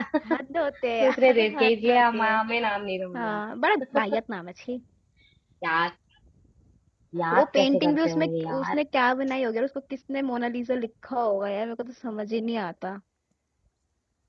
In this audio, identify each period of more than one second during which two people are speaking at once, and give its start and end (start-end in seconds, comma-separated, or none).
1.0-2.3, 7.3-8.8